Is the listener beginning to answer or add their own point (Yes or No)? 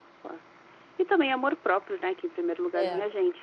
No